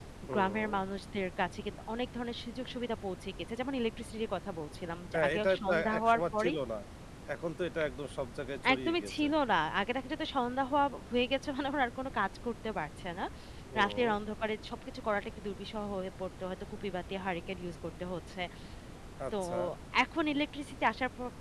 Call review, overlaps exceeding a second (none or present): present